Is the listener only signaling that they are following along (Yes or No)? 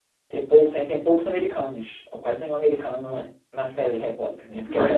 No